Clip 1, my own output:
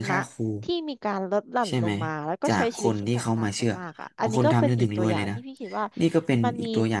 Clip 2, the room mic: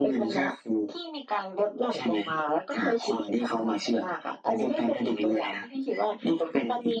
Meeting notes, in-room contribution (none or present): none